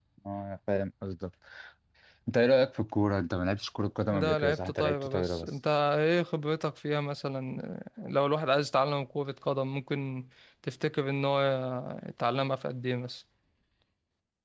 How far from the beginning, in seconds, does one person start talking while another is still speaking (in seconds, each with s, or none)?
4.1 s